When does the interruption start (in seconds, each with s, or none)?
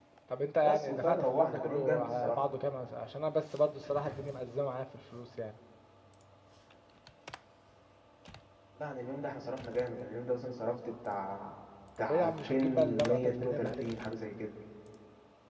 0.6 s